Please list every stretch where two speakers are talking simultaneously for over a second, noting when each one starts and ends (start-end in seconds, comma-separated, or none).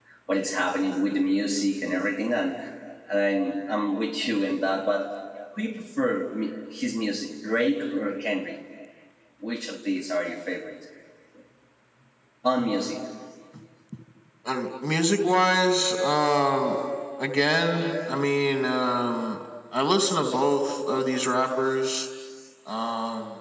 none